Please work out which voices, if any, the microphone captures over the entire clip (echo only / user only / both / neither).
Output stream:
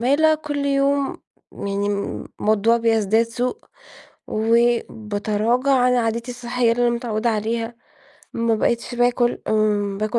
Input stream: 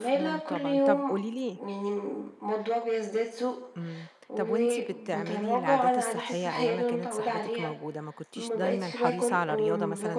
both